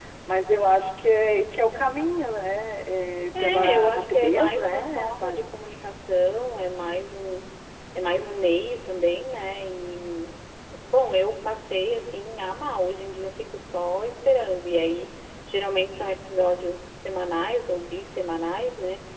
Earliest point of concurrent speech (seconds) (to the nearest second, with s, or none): 3 s